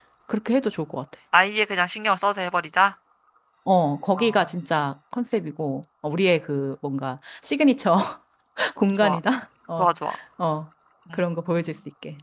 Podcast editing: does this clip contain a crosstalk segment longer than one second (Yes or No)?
No